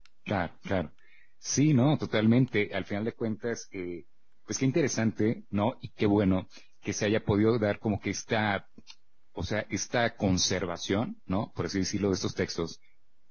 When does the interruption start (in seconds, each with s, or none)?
none